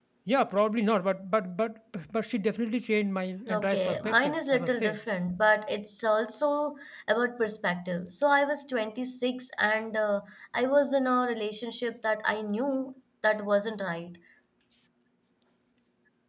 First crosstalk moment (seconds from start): 3.5 s

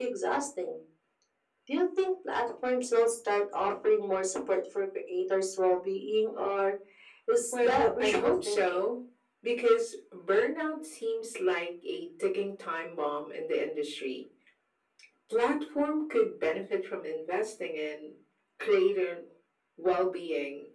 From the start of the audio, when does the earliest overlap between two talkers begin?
7.5 s

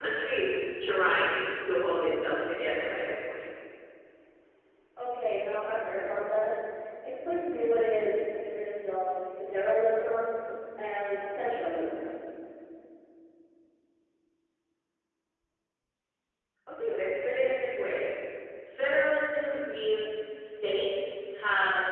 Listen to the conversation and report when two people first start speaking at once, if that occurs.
none

